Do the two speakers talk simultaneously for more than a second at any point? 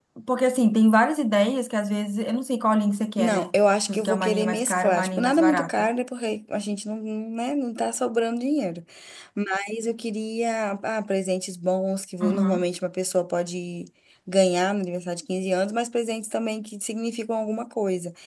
Yes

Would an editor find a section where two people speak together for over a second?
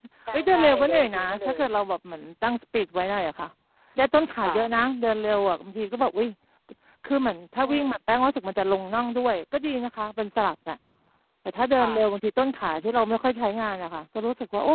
Yes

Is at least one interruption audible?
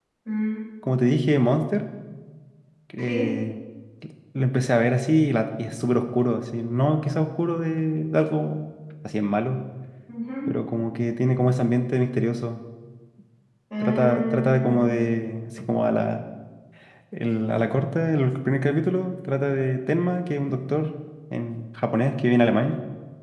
Yes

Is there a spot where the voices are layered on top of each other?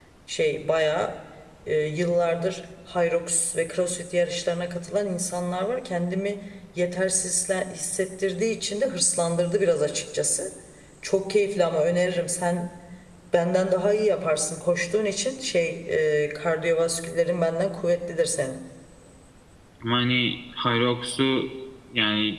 No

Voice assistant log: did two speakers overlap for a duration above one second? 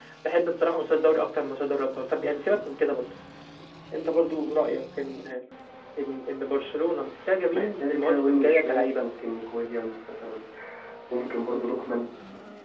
Yes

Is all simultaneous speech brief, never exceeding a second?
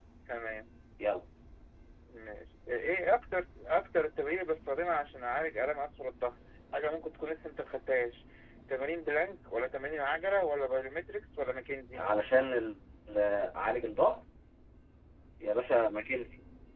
Yes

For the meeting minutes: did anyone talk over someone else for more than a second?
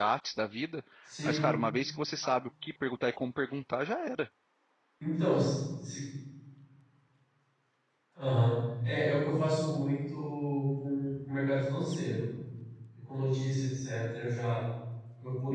No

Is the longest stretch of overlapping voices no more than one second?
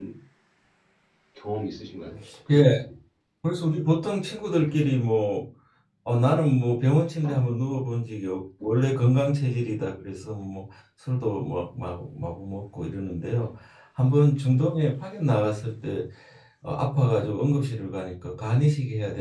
Yes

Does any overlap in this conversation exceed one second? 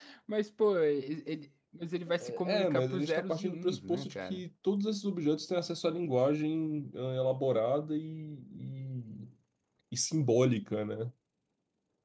Yes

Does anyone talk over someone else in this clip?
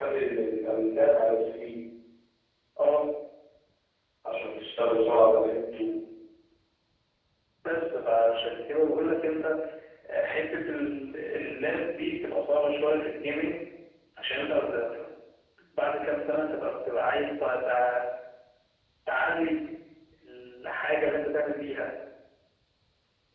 No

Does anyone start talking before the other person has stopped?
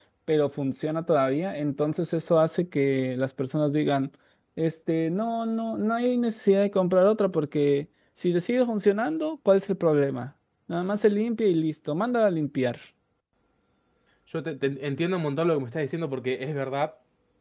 No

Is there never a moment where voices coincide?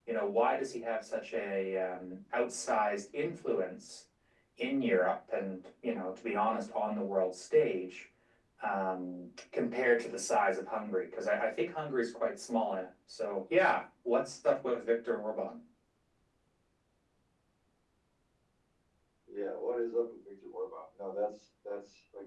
Yes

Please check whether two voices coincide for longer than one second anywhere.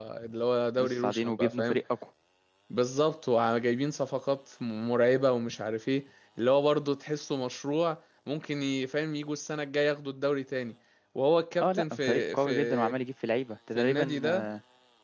Yes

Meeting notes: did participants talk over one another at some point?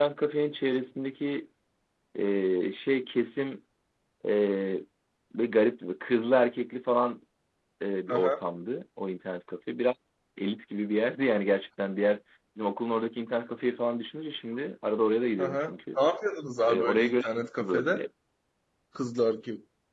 Yes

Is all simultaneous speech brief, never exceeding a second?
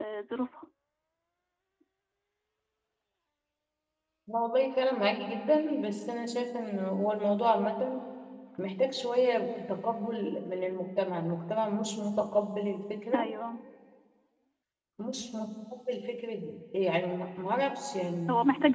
Yes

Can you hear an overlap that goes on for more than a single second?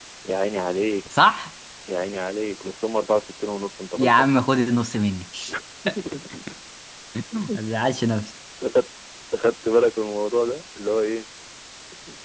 No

